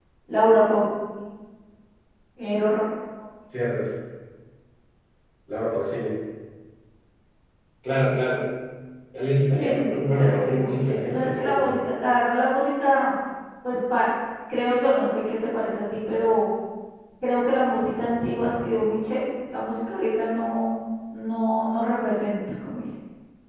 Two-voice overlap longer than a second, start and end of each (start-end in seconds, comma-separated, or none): 9.5-11.7